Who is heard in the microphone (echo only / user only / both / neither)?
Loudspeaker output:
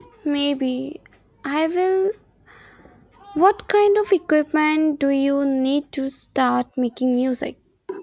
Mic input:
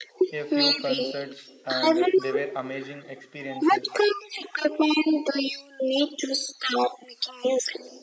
both